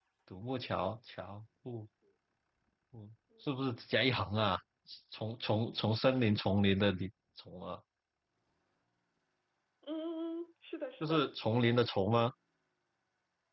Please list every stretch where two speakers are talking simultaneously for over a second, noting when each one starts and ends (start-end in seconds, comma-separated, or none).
none